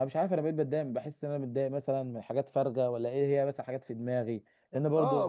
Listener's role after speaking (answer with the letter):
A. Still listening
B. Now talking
B